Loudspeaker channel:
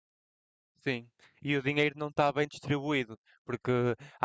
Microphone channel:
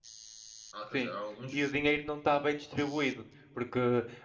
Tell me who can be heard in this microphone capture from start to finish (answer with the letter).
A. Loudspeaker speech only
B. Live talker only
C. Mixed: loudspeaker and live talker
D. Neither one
C